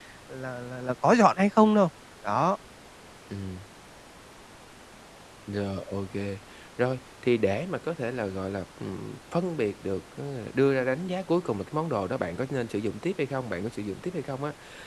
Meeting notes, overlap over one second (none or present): none